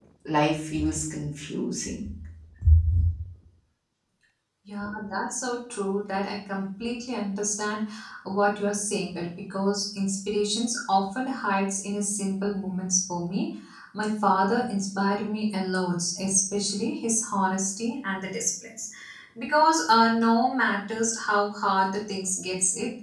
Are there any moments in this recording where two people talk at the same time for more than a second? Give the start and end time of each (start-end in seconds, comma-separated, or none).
none